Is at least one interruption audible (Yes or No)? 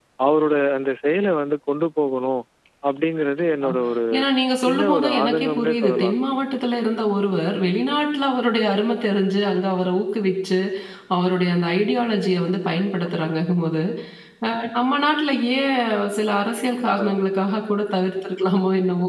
Yes